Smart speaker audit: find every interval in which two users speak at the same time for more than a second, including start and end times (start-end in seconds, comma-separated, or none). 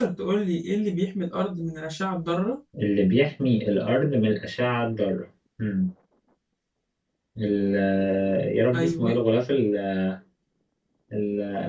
none